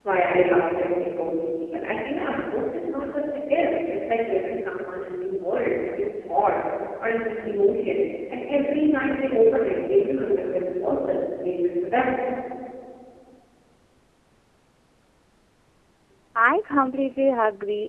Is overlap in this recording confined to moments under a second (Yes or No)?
Yes